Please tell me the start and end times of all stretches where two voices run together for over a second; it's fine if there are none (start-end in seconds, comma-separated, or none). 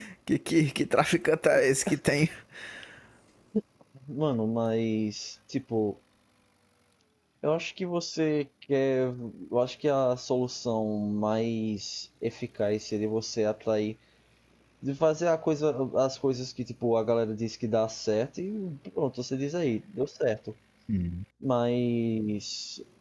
none